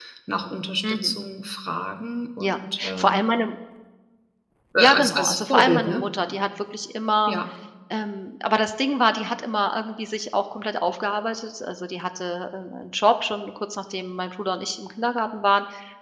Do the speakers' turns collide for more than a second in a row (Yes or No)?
Yes